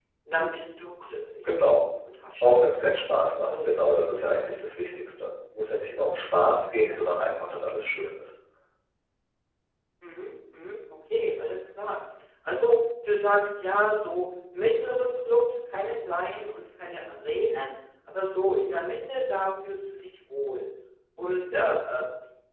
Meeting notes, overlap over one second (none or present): none